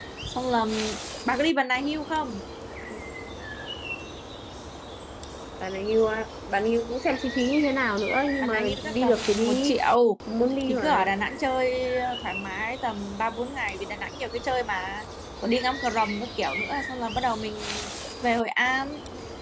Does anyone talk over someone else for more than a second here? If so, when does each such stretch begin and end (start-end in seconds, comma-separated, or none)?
8.4-9.8